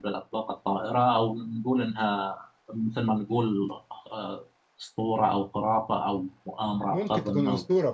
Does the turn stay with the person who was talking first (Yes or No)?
No